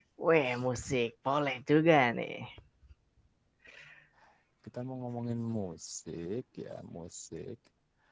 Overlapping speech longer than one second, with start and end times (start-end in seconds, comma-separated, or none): none